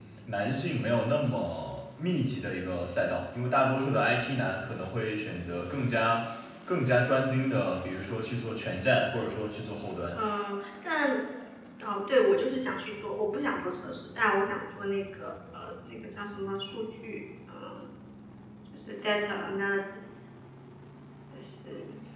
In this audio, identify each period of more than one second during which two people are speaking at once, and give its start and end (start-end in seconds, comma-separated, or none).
none